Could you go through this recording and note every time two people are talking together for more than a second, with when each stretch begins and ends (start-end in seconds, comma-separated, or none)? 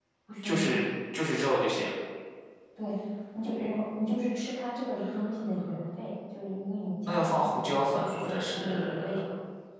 7.1-8.9